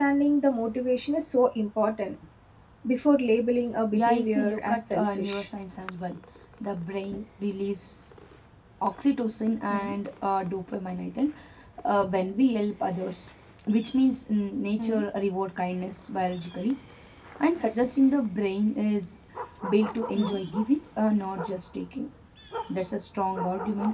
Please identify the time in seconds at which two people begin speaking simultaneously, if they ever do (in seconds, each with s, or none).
3.9 s